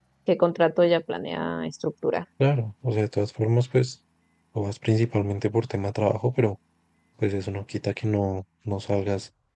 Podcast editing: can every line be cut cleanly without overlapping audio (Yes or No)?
Yes